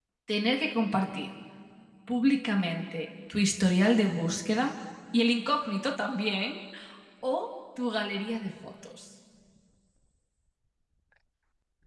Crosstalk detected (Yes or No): No